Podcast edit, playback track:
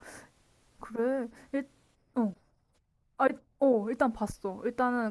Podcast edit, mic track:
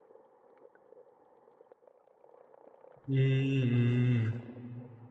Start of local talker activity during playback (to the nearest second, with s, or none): 3 s